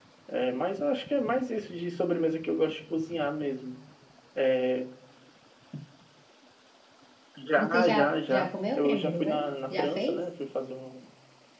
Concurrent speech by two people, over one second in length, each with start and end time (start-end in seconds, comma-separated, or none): 7.6-10.2